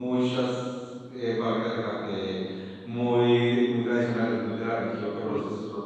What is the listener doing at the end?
listening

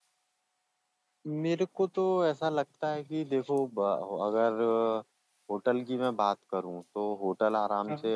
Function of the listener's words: listening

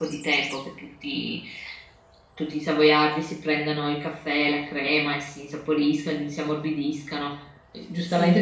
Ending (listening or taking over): listening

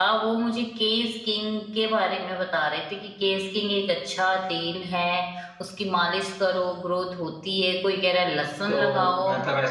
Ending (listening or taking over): taking over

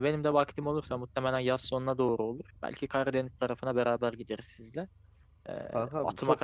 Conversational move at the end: listening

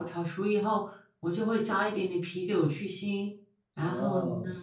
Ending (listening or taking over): taking over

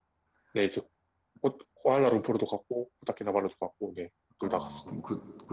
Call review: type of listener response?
taking over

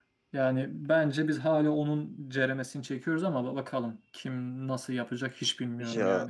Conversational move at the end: taking over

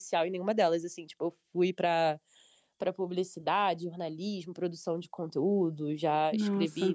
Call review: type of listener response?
listening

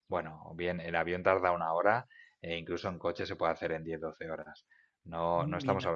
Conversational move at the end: listening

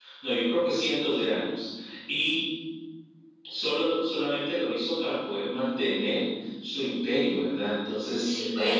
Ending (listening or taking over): listening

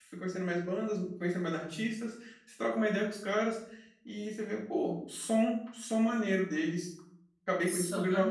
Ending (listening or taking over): listening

